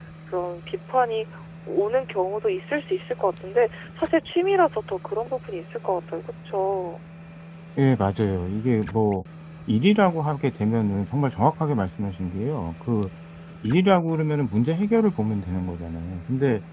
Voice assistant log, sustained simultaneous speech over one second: none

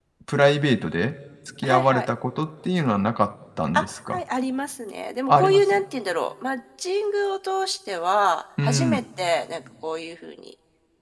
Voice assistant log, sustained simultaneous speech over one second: none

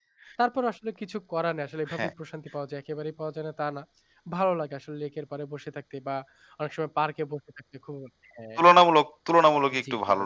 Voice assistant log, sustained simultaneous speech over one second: none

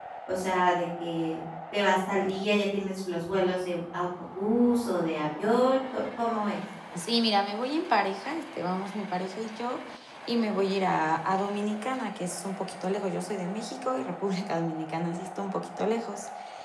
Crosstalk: none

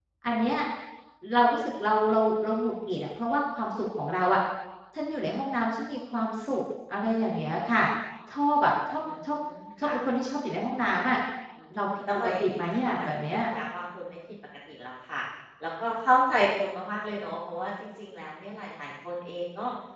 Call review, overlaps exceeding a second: present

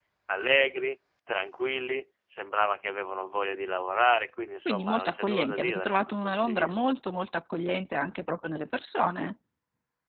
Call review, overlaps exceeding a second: present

